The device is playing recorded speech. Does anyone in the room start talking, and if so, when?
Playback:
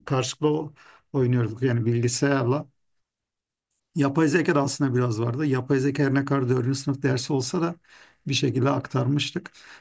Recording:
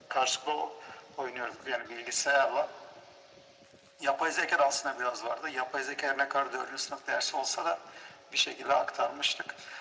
none

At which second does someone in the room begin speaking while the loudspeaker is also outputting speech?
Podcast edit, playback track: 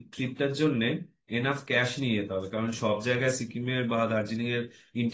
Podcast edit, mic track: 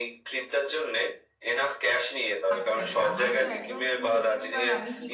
2.6 s

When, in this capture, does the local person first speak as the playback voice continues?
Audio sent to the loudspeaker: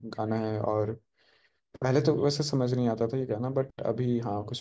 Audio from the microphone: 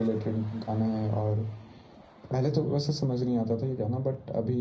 none

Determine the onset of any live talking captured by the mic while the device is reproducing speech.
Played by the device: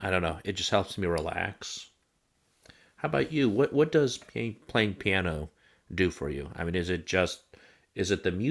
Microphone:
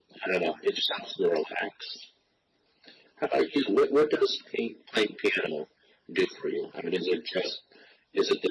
none

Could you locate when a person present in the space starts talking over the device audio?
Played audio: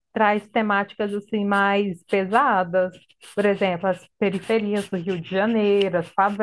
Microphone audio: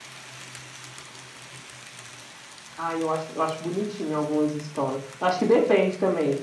2.8 s

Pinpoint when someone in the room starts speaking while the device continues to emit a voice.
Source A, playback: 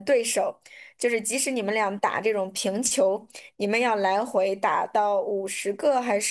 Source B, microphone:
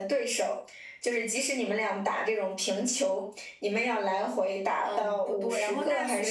4.8 s

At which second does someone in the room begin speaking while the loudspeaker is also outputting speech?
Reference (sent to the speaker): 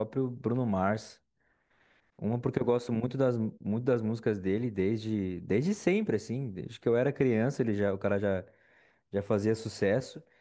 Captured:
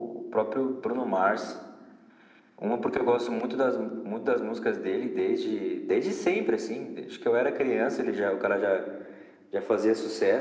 none

